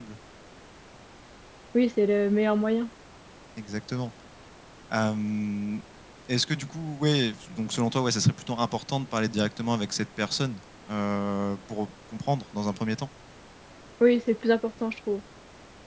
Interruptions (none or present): none